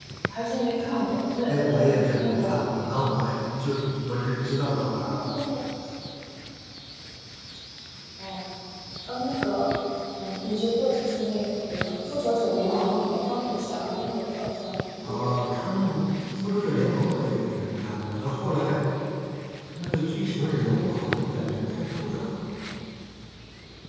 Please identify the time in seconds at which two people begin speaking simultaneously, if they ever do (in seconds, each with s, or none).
1.4 s